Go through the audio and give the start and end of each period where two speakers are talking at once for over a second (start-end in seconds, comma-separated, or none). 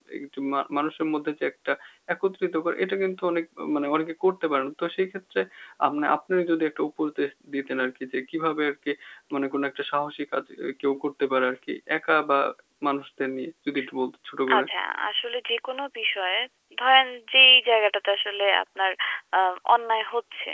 none